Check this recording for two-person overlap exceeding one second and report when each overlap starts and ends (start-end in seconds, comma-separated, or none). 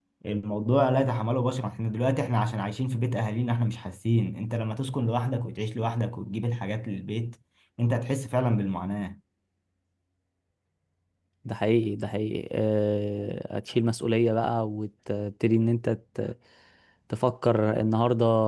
none